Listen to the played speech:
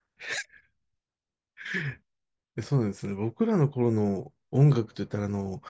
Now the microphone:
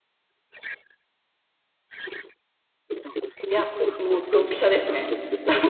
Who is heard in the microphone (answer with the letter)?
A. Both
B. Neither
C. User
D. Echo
A